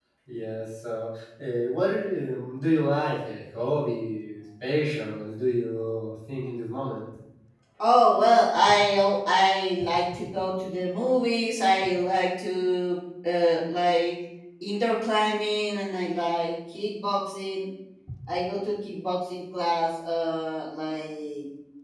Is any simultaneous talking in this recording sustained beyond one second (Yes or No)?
No